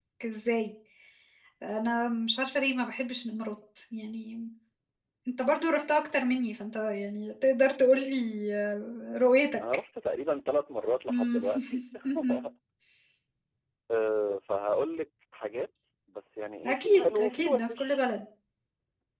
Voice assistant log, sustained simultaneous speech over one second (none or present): present